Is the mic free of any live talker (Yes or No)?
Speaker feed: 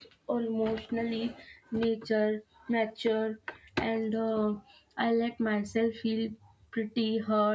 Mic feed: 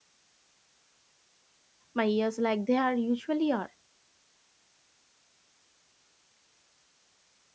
No